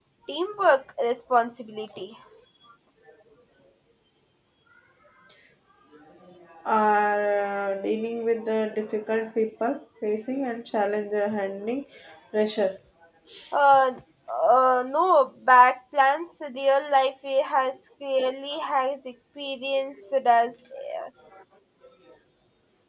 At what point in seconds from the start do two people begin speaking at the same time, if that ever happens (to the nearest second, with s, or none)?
none